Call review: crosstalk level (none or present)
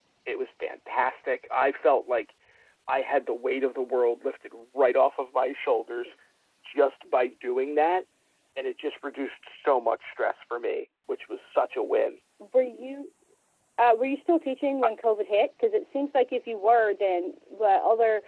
none